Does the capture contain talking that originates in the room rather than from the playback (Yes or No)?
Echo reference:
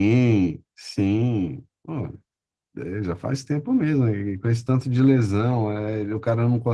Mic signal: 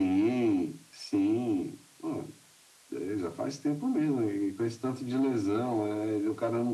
No